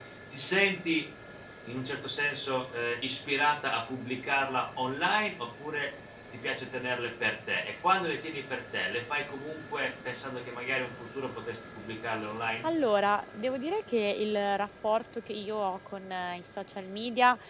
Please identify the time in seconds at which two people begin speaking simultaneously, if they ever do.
none

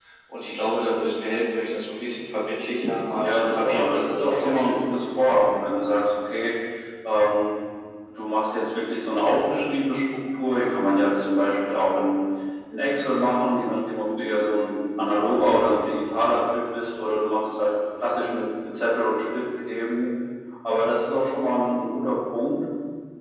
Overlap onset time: 3.2 s

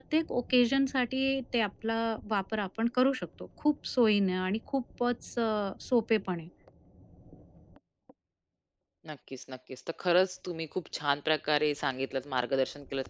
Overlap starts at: none

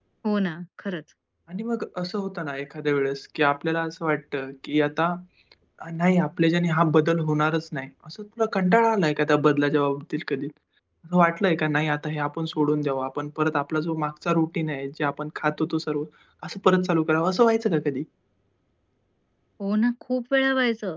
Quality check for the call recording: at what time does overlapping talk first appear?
none

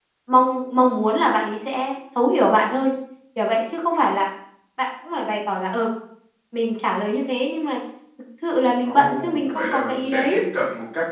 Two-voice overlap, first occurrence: 8.8 s

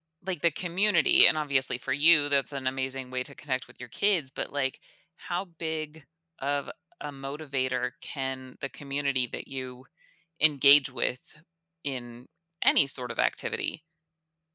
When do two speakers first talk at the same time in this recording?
none

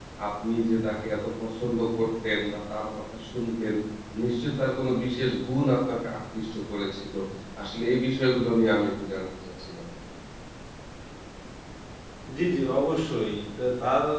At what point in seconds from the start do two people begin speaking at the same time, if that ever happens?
none

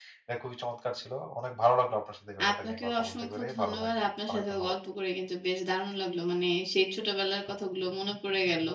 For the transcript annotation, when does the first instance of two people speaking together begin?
2.4 s

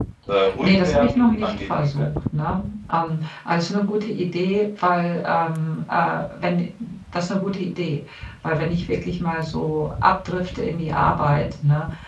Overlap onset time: 0.6 s

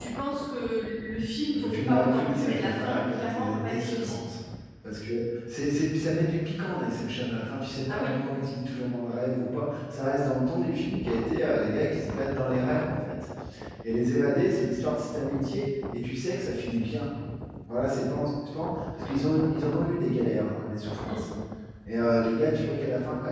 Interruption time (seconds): 1.5 s

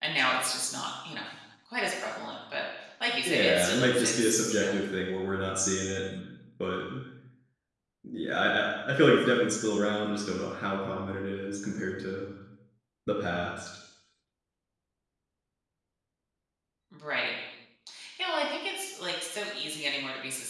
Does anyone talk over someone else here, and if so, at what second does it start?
3.2 s

